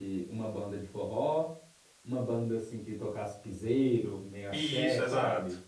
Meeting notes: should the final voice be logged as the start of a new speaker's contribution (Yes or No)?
Yes